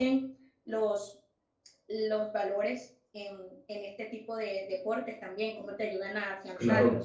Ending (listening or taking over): taking over